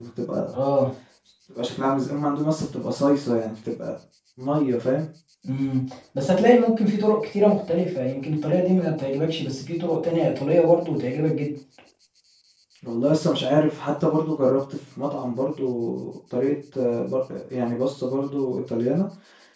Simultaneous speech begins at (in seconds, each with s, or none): none